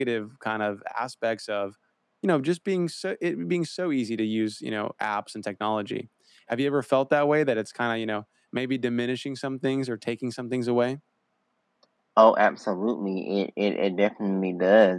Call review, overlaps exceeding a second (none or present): none